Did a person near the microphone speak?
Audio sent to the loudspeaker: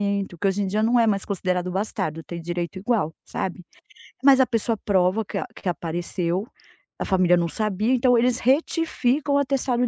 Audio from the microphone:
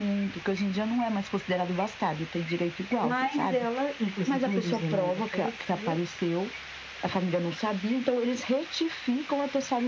Yes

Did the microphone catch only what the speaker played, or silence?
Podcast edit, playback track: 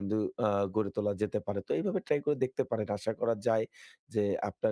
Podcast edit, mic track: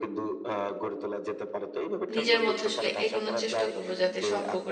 No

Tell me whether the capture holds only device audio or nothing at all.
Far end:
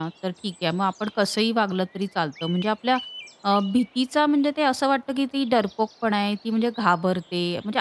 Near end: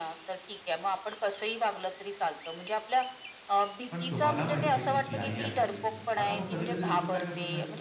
No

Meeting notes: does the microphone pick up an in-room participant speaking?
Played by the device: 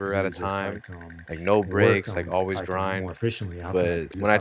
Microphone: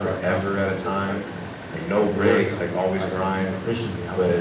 No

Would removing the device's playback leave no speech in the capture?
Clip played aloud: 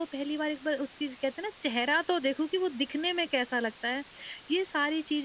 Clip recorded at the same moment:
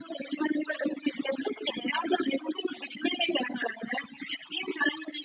Yes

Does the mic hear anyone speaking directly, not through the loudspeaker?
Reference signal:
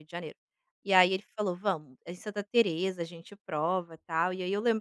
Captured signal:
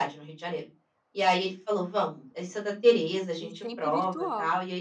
Yes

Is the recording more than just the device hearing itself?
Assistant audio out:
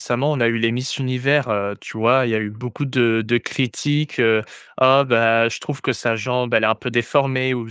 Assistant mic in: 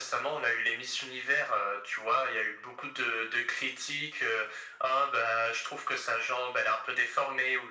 No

